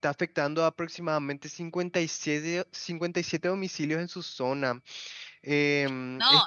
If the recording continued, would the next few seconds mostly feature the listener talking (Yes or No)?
Yes